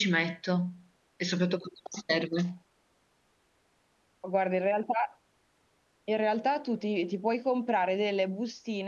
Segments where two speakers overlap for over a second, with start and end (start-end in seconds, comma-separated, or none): none